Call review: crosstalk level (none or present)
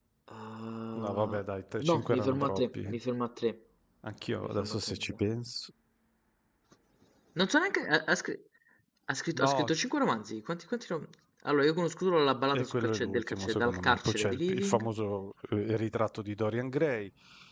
present